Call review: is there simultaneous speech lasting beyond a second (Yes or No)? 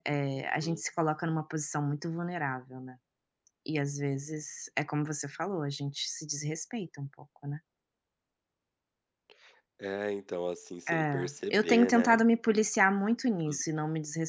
Yes